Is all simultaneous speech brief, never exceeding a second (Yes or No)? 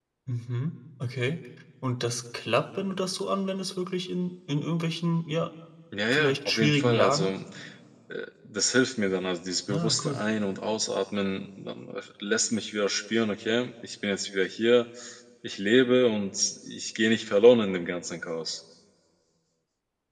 No